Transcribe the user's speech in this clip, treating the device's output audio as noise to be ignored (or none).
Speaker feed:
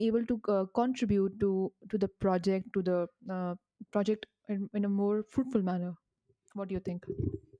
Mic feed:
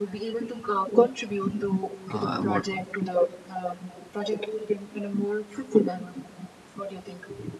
uh, what